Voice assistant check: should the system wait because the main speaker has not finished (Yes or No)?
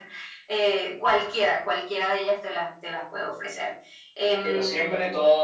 No